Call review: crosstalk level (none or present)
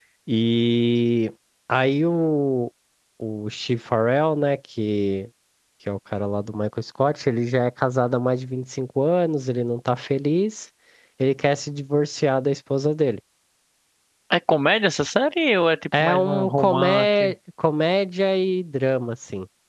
present